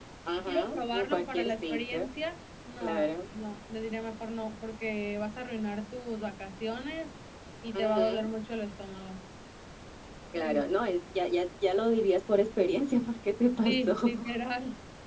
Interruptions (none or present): present